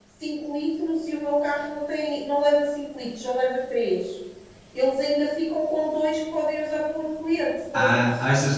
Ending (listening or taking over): taking over